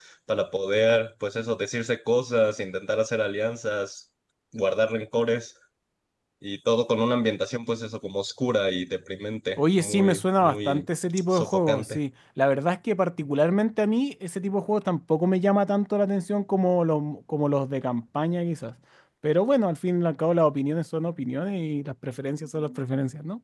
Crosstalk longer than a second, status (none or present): present